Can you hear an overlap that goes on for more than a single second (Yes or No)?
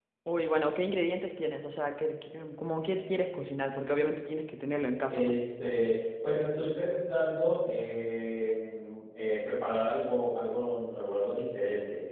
No